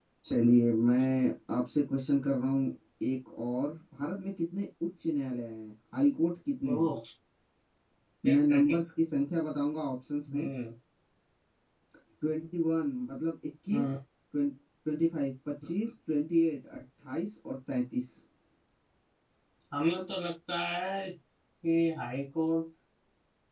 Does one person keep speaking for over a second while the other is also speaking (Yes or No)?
No